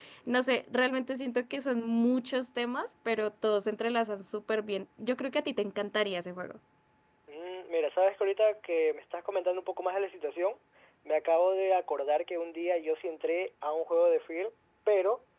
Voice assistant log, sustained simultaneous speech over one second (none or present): none